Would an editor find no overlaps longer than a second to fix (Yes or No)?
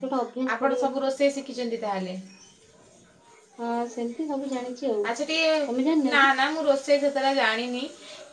Yes